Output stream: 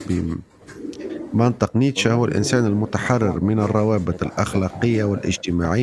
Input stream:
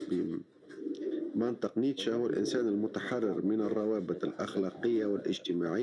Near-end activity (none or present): none